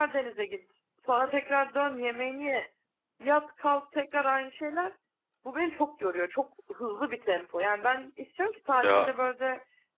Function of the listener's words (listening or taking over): listening